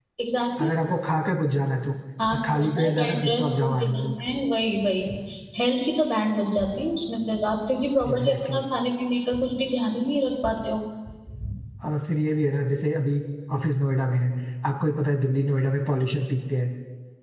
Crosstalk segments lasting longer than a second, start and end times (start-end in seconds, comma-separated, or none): 2.3-4.1